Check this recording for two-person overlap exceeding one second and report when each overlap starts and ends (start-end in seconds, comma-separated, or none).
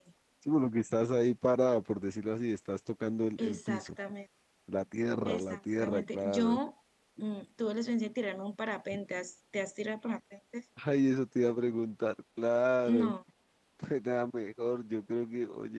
5.3-6.6